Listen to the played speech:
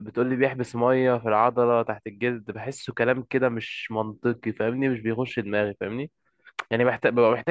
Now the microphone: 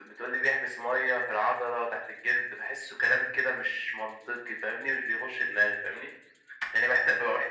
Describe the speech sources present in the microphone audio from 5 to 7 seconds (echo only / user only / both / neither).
echo only